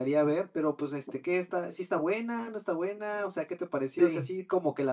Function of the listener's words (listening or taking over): listening